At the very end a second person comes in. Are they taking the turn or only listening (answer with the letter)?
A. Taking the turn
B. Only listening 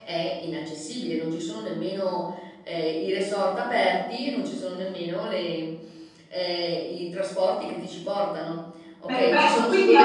A